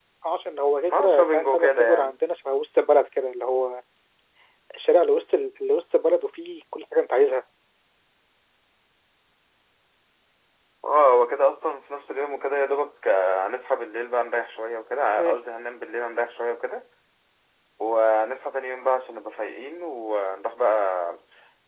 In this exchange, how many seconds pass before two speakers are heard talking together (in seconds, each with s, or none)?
0.9 s